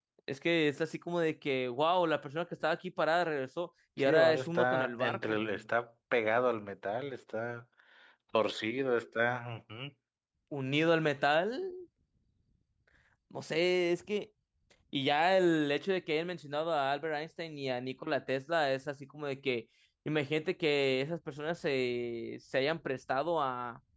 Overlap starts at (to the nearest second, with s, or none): 4 s